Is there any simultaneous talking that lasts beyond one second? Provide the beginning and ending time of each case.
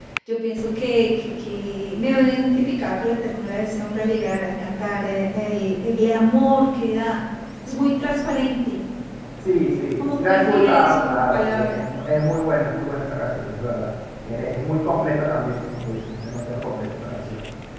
10.0-11.9

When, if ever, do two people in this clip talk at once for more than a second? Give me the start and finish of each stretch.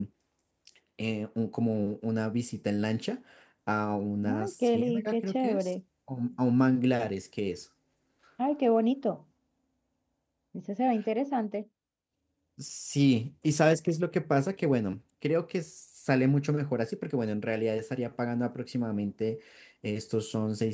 4.3-5.7

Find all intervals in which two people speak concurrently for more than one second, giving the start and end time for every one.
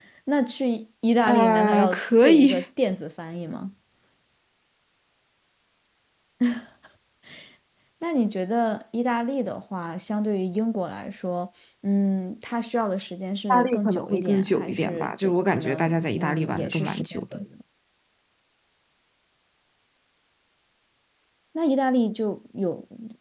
1.2-2.6, 13.5-17.4

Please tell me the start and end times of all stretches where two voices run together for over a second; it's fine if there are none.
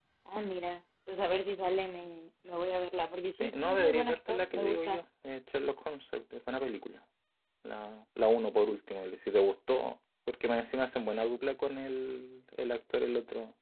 3.4-5.0

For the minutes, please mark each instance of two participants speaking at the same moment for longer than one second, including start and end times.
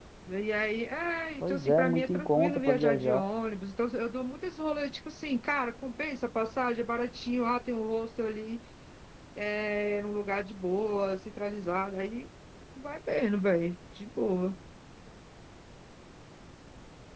1.4-3.2

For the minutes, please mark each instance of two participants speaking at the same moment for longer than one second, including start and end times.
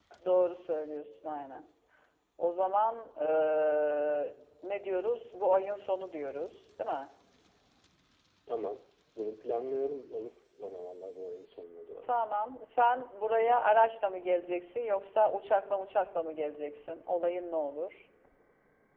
none

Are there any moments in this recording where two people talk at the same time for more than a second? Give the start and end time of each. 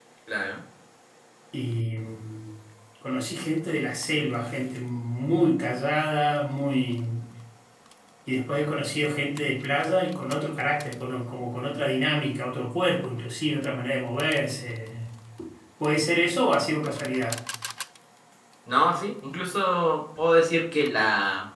none

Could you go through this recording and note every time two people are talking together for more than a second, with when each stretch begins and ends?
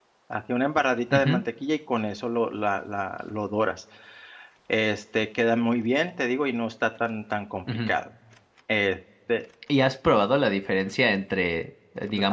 none

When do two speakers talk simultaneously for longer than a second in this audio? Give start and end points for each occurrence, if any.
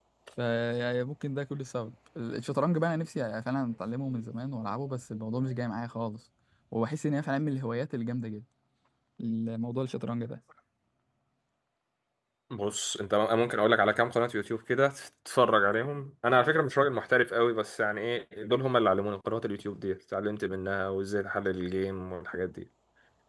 none

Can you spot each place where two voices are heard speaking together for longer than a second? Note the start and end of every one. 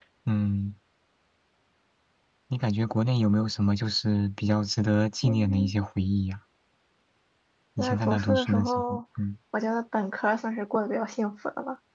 7.8-9.0

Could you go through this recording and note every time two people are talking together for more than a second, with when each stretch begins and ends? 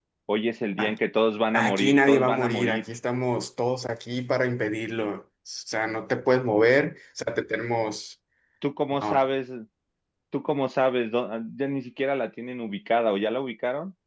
1.5-2.8

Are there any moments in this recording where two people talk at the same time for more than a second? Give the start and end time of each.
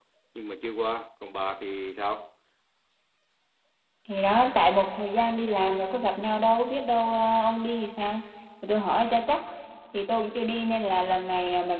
none

